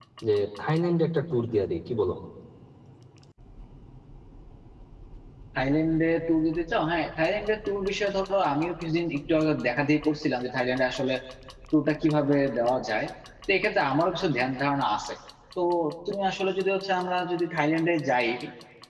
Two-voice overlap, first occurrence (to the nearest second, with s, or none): none